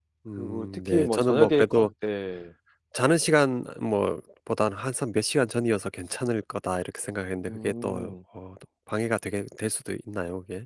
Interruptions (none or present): present